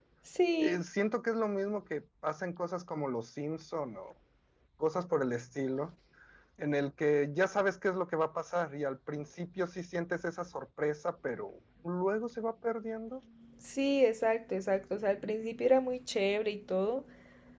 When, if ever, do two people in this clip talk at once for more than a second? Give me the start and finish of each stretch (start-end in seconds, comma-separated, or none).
none